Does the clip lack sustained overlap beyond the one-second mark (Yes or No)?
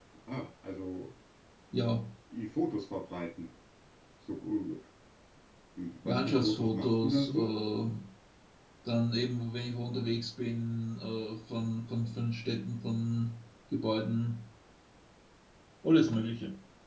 No